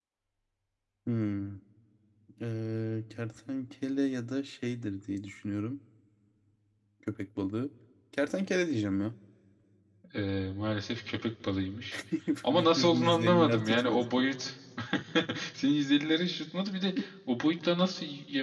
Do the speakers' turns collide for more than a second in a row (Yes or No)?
Yes